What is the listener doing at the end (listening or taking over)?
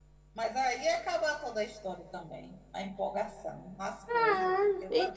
taking over